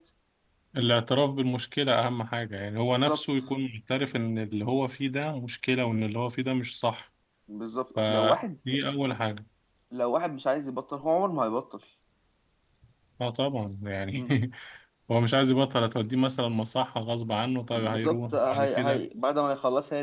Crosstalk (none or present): present